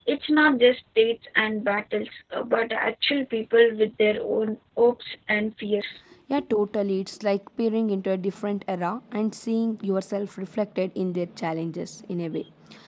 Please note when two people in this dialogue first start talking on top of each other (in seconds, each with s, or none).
none